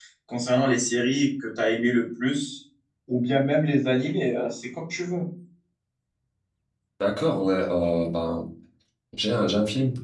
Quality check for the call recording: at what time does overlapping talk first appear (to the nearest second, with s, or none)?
none